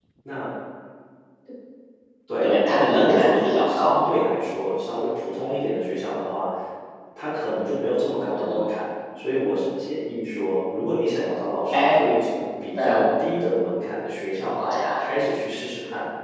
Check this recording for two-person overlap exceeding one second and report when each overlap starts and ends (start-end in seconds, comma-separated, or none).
2.4-4.0